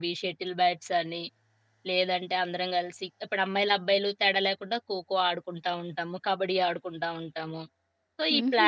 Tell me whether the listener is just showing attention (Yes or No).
No